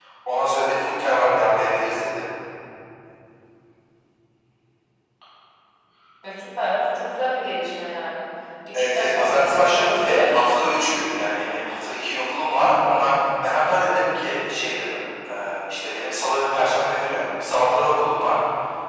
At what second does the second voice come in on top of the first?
8.7 s

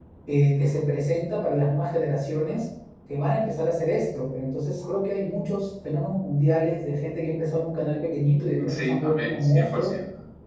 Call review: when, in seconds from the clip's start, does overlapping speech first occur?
8.6 s

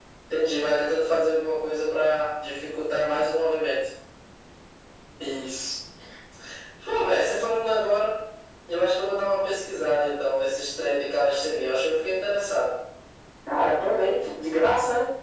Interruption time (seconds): none

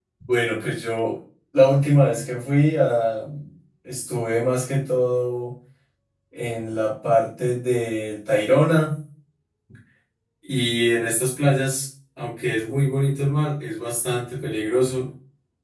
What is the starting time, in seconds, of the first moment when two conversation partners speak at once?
none

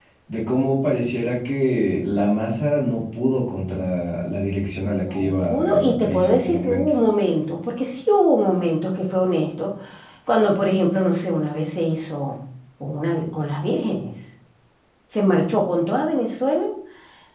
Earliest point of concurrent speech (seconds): 5.1 s

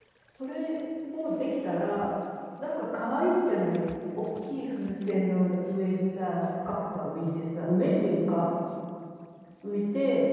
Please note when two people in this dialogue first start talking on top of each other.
none

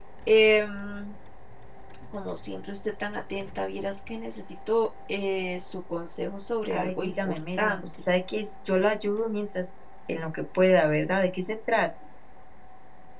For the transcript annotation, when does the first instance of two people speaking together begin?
6.7 s

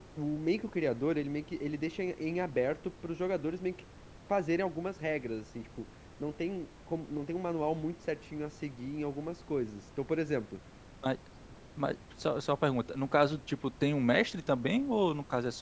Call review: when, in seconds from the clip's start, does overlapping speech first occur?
none

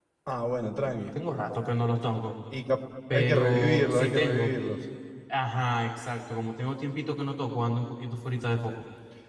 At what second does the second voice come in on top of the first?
3.1 s

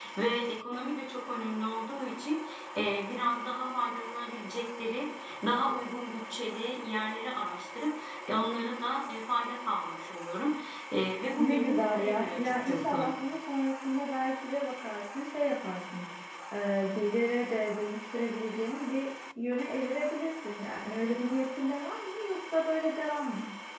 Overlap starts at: 11.4 s

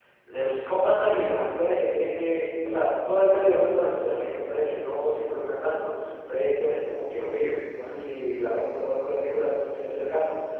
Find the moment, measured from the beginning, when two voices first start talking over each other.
none

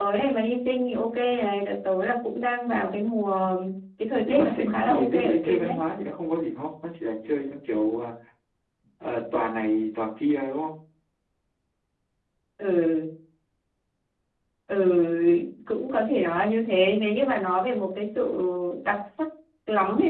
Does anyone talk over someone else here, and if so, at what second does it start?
4.3 s

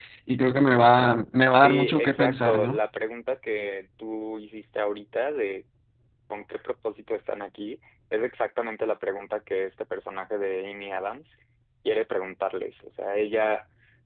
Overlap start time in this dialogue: 1.5 s

